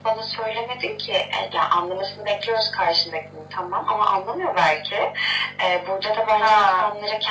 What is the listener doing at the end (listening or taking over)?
listening